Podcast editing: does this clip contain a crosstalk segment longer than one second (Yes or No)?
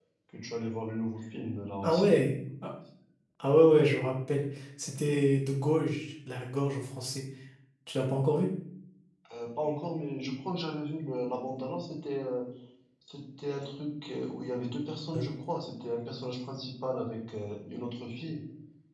No